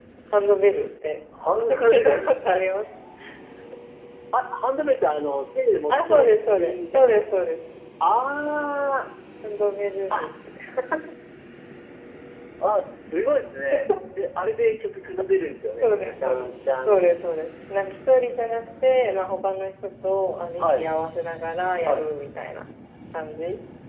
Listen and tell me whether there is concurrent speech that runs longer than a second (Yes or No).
Yes